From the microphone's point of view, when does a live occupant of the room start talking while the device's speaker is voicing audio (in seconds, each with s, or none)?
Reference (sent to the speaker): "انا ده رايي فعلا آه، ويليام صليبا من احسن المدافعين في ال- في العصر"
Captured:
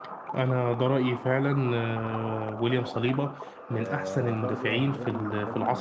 3.7 s